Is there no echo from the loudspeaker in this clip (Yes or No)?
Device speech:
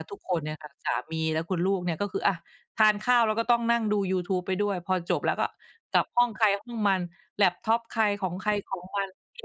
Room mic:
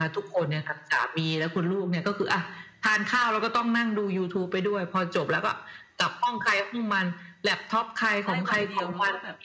No